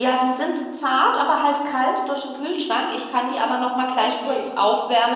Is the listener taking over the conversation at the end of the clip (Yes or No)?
No